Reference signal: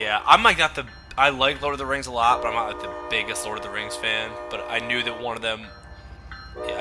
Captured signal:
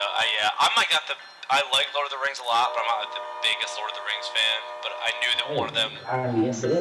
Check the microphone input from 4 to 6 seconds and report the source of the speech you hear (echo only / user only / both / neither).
both